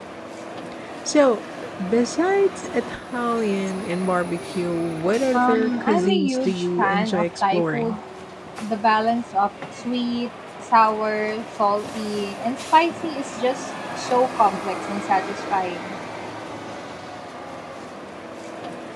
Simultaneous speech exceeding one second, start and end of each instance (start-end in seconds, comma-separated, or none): 5.3-8.0